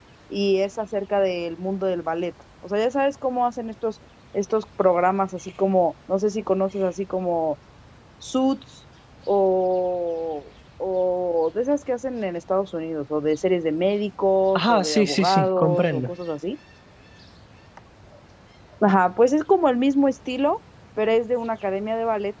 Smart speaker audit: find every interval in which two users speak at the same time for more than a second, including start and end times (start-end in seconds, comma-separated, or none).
14.6-16.1